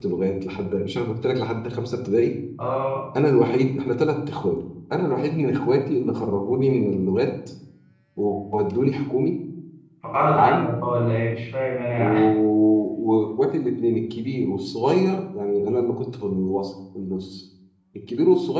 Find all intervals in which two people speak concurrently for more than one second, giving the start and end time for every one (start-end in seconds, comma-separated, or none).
none